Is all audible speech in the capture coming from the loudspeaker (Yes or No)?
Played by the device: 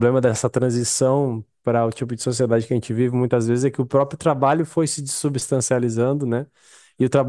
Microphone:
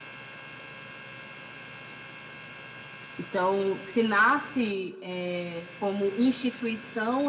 No